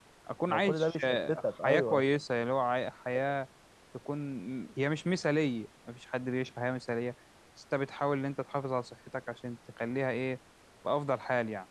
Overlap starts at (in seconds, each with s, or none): 0.5 s